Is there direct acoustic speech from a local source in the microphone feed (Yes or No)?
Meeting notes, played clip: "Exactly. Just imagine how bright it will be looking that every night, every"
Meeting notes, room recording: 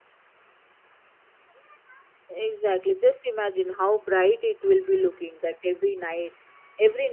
No